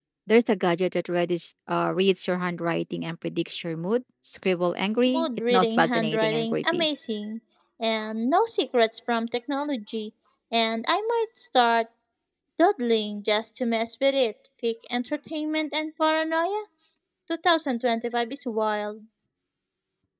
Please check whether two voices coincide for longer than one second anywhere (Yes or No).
Yes